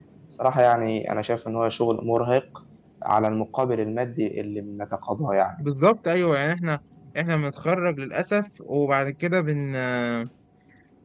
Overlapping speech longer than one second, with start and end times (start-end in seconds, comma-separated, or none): none